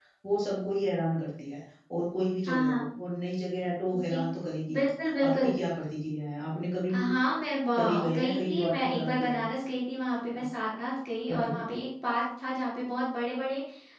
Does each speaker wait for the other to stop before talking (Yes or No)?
No